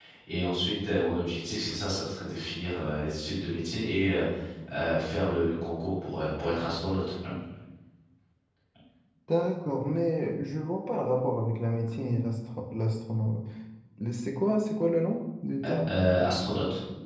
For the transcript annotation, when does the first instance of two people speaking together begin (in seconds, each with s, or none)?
none